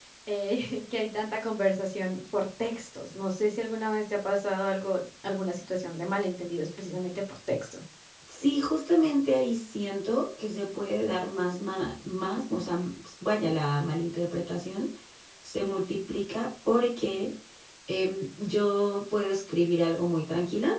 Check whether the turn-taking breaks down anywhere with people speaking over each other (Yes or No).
No